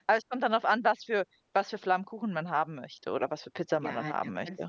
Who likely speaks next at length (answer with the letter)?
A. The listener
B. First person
A